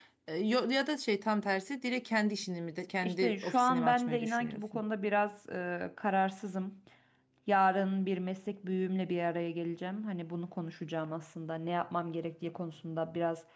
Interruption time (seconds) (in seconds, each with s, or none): 3.0 s